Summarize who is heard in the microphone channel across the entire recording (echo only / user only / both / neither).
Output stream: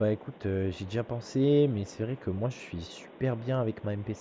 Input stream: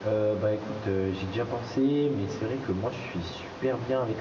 echo only